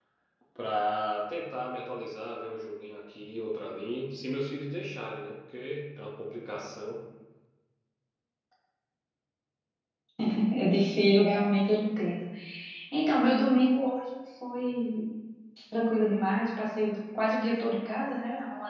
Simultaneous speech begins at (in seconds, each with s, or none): none